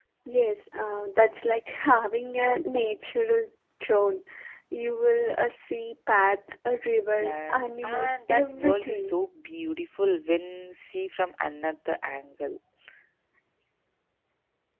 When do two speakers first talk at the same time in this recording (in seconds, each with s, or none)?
7.1 s